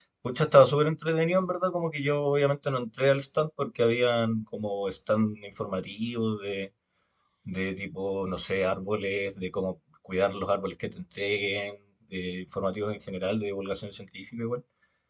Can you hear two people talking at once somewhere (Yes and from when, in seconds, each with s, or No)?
No